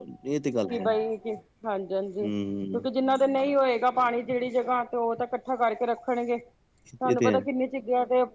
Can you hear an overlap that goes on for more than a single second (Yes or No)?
No